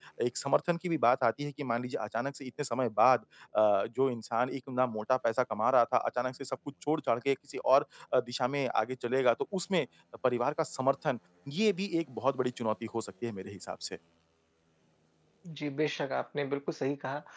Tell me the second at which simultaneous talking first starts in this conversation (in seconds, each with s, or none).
none